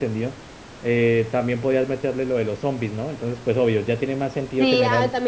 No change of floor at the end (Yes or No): No